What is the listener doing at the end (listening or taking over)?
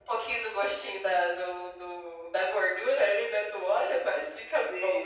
taking over